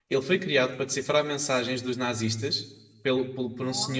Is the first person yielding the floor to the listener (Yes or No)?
No